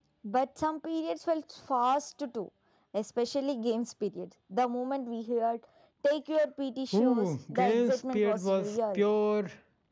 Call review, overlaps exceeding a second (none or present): present